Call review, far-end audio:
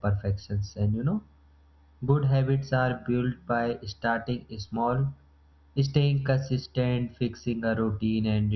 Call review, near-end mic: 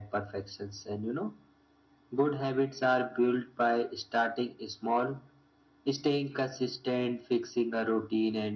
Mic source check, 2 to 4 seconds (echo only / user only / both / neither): echo only